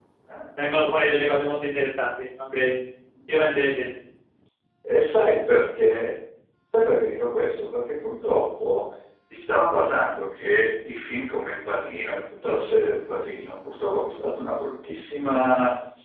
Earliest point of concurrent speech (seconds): none

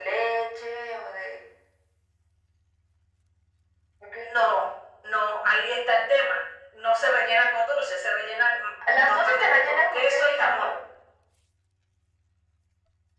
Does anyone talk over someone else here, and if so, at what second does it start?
8.8 s

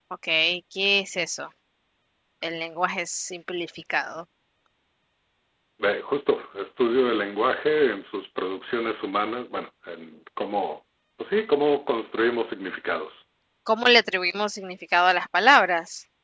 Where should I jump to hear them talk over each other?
none

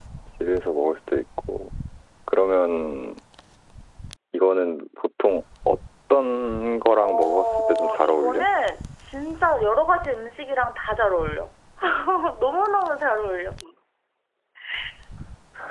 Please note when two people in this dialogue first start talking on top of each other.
7.0 s

